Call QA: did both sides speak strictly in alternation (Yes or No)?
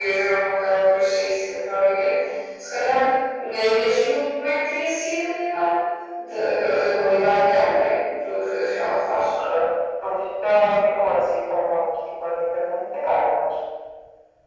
Yes